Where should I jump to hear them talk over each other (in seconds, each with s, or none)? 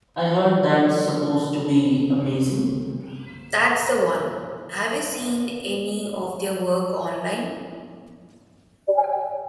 none